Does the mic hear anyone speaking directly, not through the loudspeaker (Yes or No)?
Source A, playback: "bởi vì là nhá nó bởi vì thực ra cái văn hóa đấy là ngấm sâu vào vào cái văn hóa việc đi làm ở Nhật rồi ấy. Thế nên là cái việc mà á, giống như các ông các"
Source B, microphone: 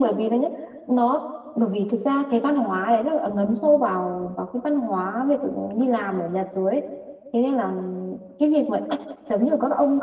No